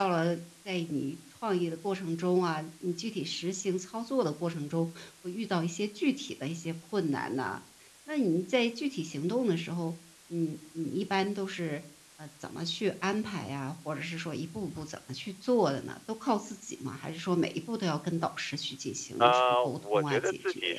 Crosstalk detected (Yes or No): Yes